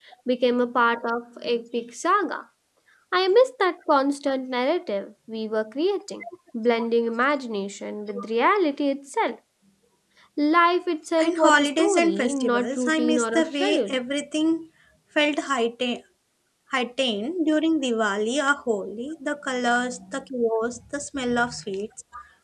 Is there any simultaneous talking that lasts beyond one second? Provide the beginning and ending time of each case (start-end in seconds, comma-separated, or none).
11.2-14.0